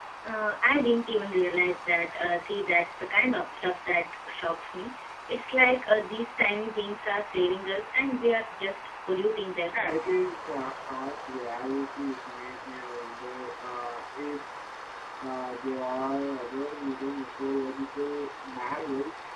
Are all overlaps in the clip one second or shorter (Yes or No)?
Yes